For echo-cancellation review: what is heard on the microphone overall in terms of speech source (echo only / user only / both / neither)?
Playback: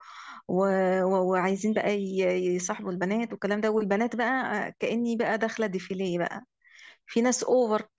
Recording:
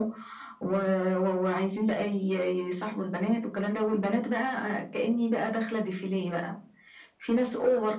echo only